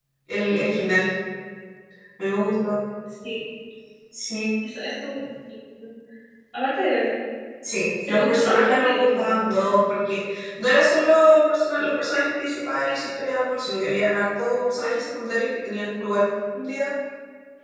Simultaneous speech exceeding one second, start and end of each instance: 8.1-9.8

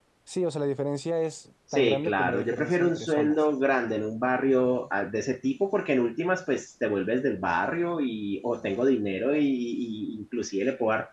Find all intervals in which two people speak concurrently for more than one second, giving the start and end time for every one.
1.7-3.4

